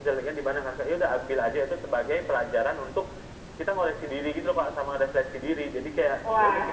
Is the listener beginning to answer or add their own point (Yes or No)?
Yes